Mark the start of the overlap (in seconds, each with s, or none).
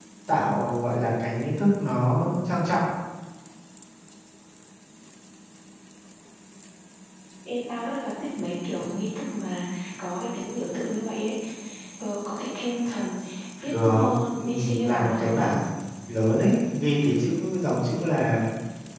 13.7 s